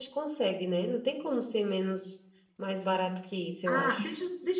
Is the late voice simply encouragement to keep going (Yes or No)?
No